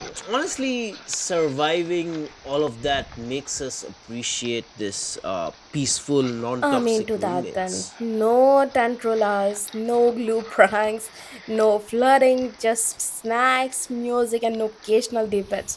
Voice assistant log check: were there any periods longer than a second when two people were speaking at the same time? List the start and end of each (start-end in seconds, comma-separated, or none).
6.6-7.8